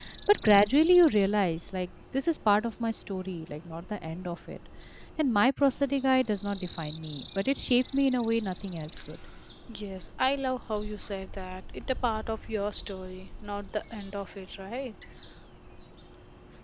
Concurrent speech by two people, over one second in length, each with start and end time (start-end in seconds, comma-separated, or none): none